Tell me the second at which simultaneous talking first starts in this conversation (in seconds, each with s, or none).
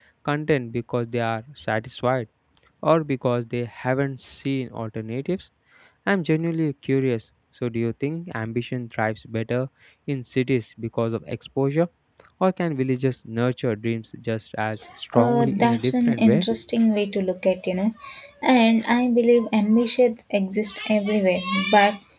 15.1 s